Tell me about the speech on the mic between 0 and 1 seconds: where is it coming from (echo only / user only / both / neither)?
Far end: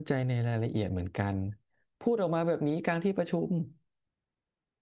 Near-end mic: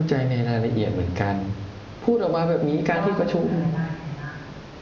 echo only